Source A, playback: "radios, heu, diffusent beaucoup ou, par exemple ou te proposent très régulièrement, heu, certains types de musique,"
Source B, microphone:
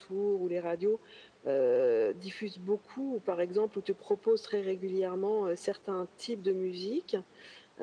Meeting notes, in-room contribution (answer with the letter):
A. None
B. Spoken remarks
A